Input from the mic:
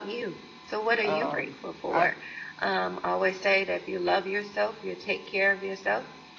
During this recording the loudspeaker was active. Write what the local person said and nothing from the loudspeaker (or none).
um, I